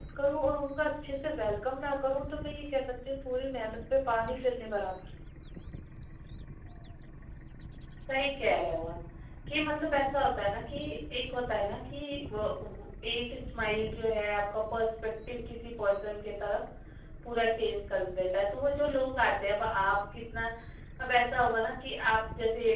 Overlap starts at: none

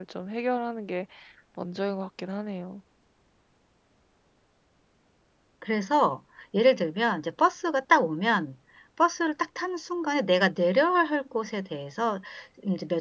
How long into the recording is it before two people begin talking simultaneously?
none

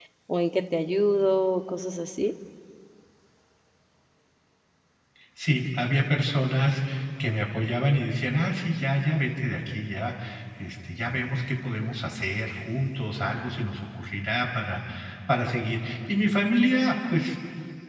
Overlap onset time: none

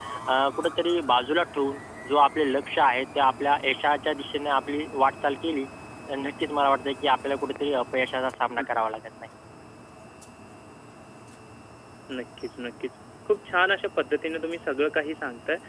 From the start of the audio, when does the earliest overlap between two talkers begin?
none

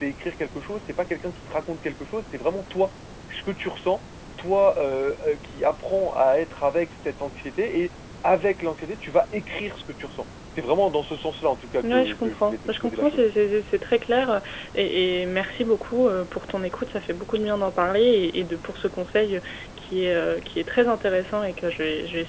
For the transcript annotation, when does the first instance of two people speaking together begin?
11.8 s

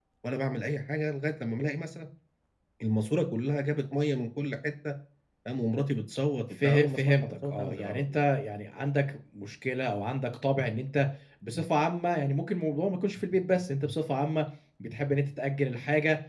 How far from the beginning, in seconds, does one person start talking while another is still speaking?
6.5 s

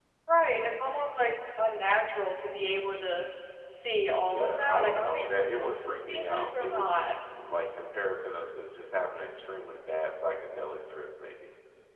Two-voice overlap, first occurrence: 4.2 s

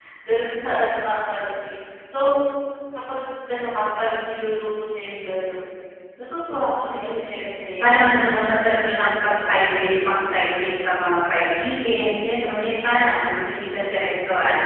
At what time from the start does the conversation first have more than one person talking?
7.8 s

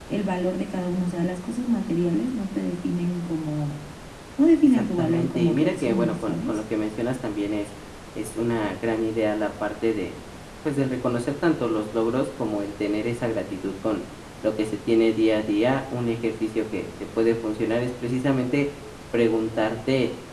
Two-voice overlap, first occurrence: 4.6 s

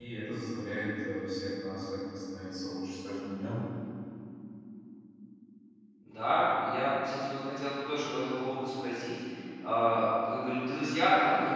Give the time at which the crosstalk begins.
none

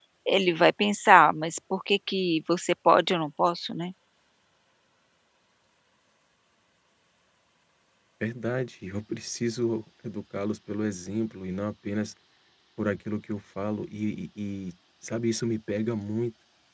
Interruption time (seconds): none

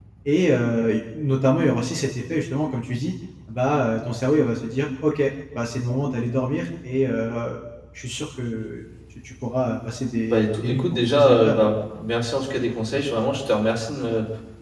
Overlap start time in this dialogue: 10.3 s

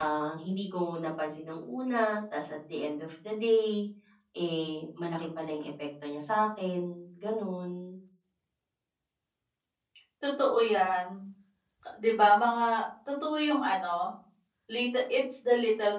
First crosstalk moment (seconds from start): none

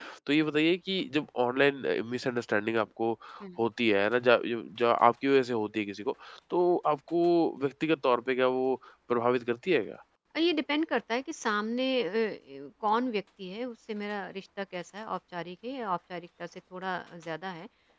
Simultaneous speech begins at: none

